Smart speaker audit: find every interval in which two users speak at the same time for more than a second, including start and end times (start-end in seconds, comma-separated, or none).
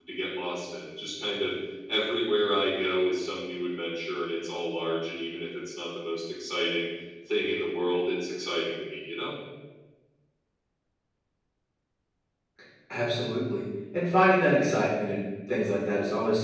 none